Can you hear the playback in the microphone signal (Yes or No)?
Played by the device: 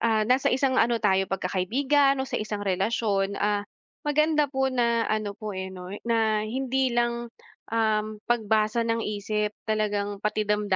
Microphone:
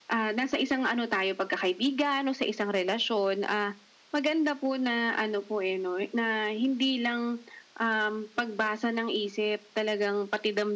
Yes